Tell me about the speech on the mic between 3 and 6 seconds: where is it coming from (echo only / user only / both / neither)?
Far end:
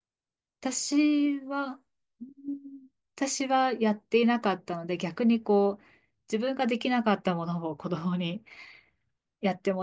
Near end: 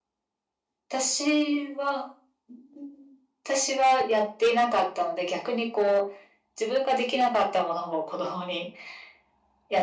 echo only